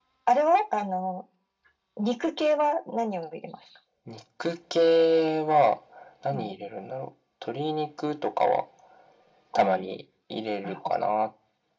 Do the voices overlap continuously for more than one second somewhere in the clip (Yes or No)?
No